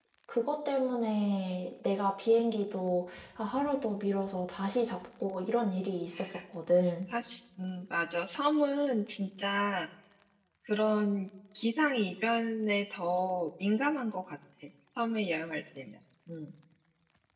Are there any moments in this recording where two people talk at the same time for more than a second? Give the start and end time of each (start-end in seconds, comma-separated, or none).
none